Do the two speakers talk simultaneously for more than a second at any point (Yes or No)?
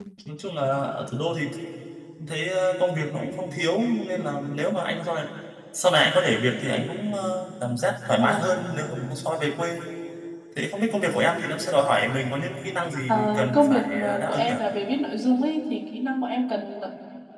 Yes